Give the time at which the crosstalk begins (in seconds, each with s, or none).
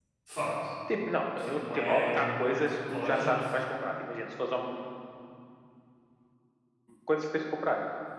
1.3 s